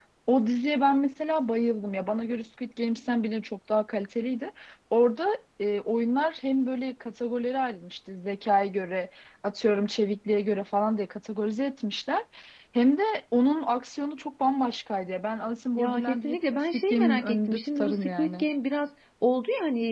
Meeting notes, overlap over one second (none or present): present